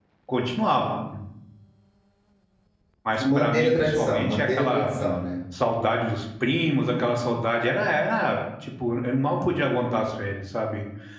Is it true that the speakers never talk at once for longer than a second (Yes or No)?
No